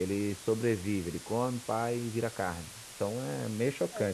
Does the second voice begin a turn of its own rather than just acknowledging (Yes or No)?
No